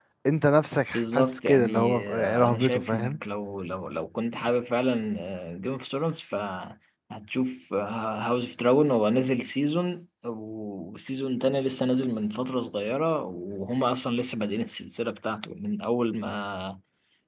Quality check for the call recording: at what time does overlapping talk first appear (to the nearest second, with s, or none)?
1 s